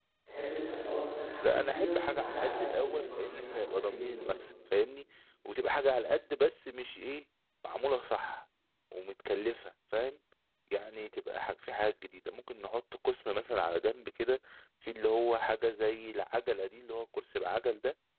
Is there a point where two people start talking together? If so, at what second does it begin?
1.4 s

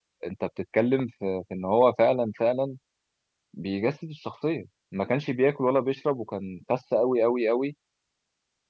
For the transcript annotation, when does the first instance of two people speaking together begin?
none

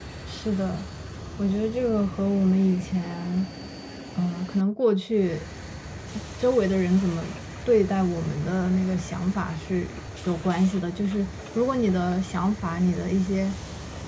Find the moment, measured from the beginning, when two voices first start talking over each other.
none

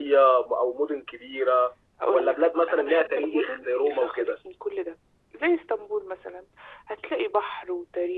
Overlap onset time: 2.0 s

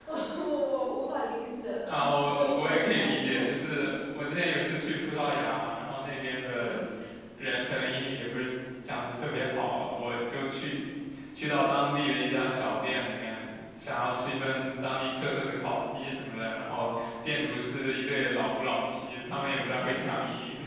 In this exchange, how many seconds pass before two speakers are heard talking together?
1.9 s

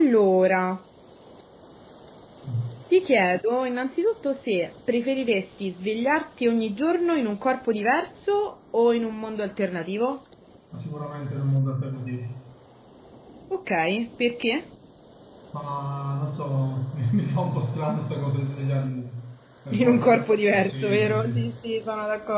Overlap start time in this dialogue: 19.7 s

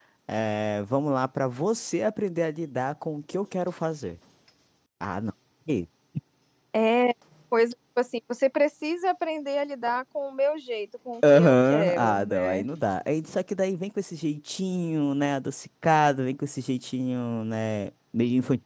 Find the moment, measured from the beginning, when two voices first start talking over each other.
11.2 s

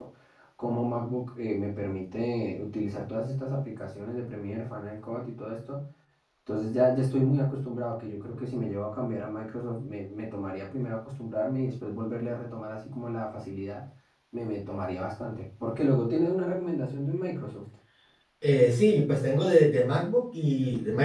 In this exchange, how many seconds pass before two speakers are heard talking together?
none

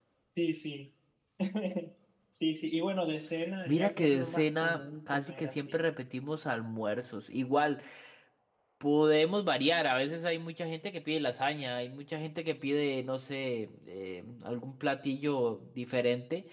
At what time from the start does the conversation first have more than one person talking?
3.6 s

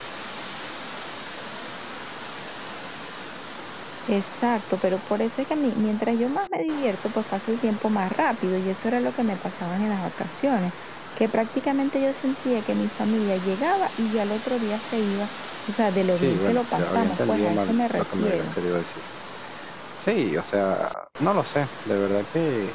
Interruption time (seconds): 16.2 s

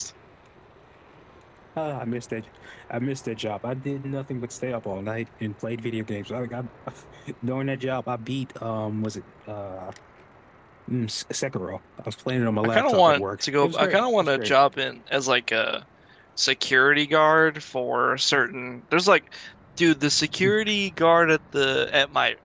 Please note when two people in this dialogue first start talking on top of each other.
12.6 s

